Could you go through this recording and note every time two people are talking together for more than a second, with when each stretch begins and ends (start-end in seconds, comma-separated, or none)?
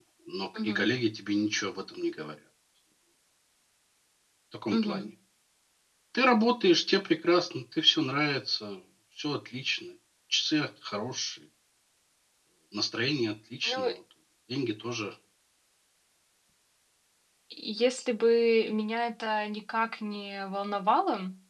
none